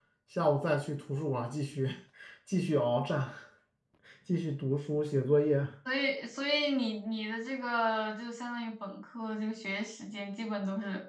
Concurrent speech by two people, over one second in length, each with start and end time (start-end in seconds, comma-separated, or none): none